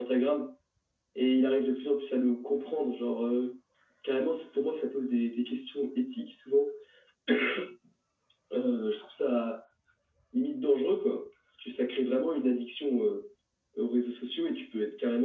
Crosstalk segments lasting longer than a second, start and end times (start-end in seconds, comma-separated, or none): none